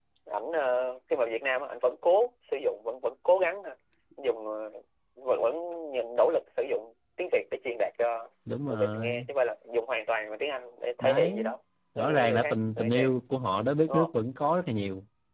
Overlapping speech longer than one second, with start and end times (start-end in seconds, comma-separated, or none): 11.9-13.2